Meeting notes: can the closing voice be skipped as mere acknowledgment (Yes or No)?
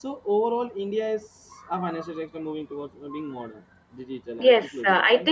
No